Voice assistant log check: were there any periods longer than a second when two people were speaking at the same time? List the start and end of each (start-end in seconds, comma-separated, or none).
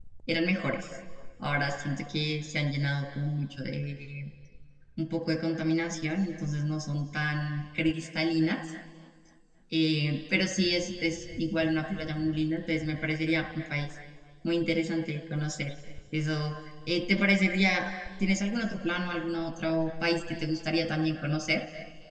none